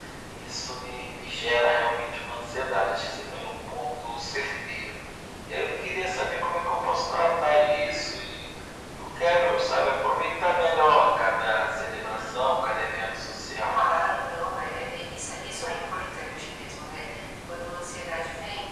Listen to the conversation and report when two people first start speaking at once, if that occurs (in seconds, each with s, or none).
12.2 s